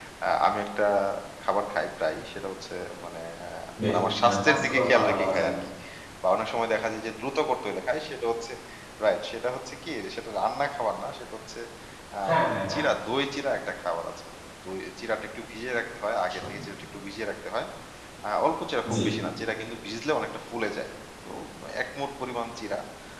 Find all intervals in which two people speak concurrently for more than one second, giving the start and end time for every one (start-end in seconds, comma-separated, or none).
3.9-5.5